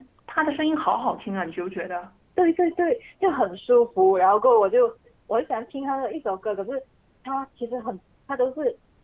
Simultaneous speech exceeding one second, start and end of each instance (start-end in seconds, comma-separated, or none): none